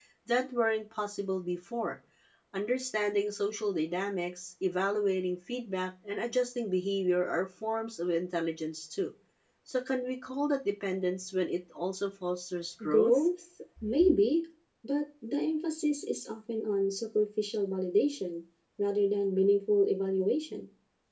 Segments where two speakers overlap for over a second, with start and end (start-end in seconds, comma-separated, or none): none